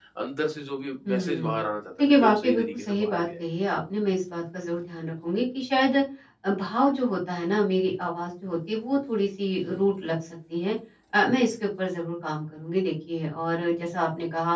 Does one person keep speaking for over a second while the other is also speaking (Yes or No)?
Yes